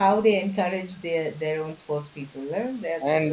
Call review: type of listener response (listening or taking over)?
taking over